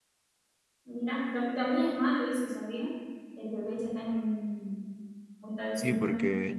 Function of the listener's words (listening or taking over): taking over